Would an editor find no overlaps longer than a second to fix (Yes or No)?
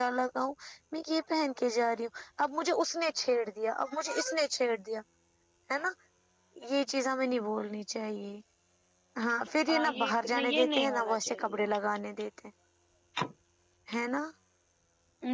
No